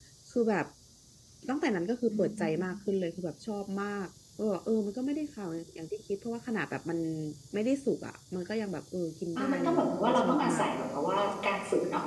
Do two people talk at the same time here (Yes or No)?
Yes